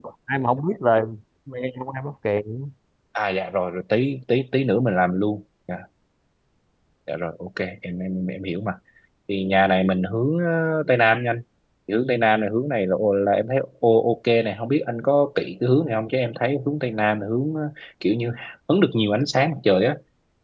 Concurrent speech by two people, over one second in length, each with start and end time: none

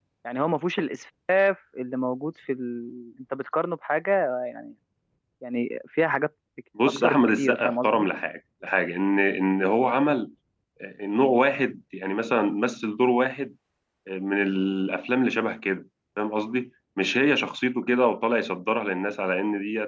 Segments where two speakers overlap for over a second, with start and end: 6.9-8.1

